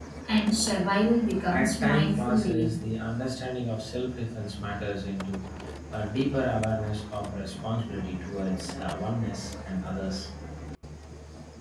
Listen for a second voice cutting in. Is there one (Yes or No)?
Yes